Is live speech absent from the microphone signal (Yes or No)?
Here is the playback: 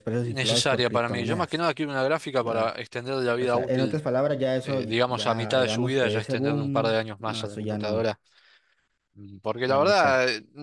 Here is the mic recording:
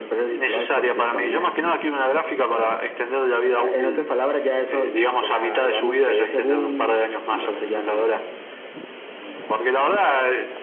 Yes